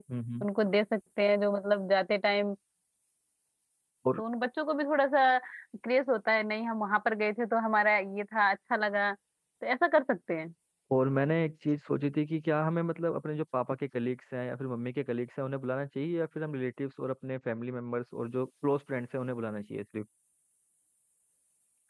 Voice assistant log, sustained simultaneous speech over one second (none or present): none